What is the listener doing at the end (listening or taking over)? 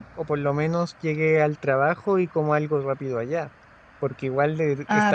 listening